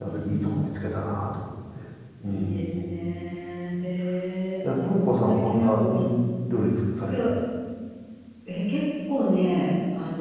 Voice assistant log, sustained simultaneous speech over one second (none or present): present